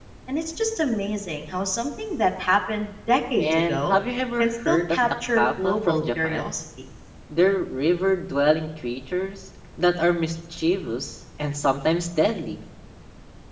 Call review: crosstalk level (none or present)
present